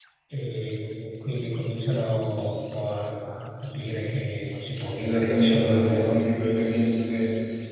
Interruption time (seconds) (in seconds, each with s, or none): 5.0 s